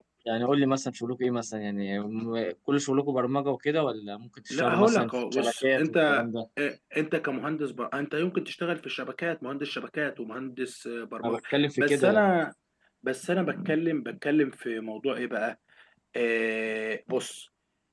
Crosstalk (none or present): present